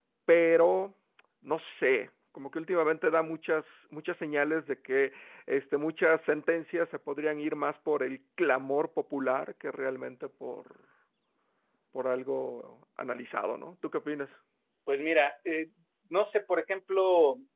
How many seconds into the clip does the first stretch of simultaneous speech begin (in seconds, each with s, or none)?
none